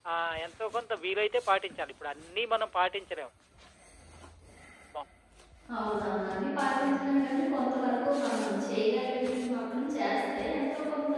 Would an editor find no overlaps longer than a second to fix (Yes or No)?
Yes